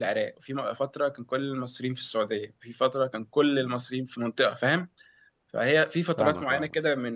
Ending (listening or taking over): listening